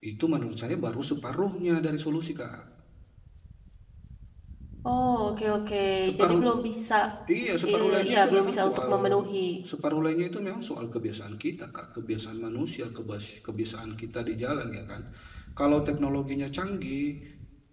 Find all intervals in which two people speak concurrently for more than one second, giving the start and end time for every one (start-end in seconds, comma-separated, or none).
7.7-9.2